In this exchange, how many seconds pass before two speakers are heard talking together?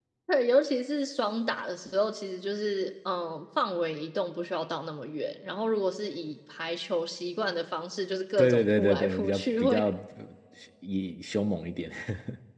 8.4 s

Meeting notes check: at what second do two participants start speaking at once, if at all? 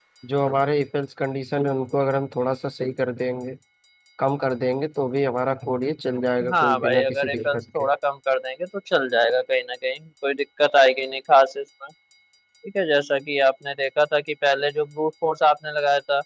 6.4 s

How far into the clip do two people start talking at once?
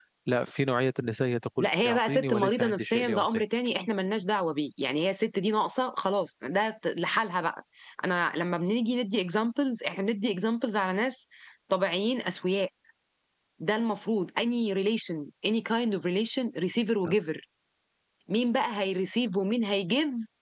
1.6 s

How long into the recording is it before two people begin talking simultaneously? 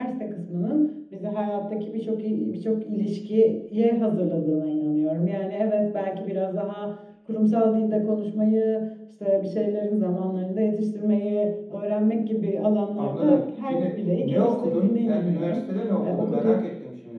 13.0 s

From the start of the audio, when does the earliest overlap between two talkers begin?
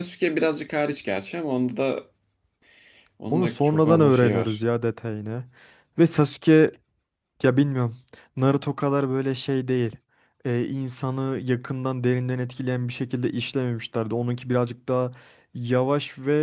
3.3 s

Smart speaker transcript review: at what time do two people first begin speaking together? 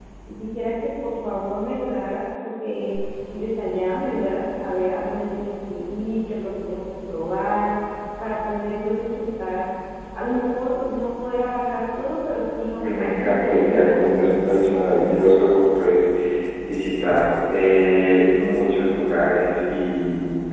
12.7 s

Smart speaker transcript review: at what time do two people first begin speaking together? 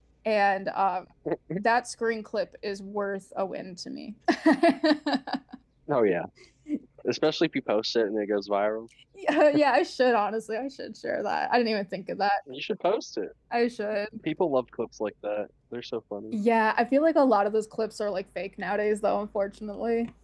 none

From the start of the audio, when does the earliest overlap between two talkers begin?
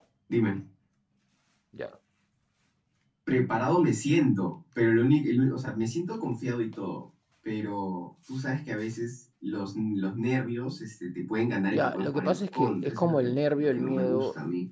11.7 s

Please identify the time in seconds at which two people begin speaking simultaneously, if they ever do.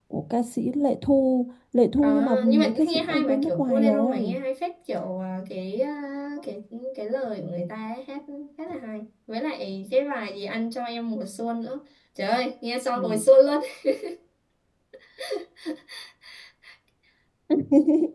2.0 s

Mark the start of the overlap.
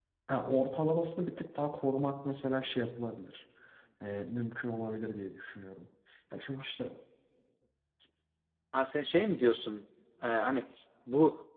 none

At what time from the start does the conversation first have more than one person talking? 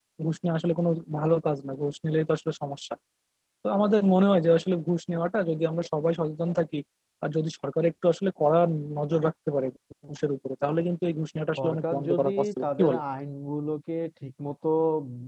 11.6 s

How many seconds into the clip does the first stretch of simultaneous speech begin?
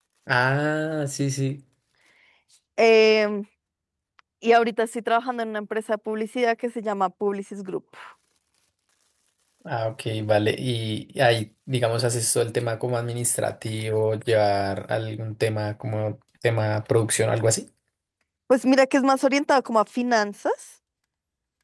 none

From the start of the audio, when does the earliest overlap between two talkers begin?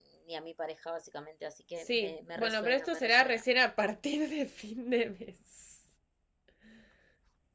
1.8 s

